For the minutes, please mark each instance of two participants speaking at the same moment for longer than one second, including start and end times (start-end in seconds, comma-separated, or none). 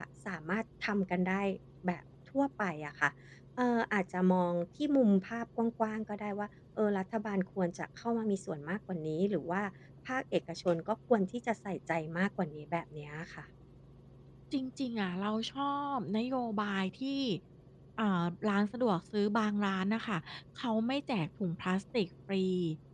none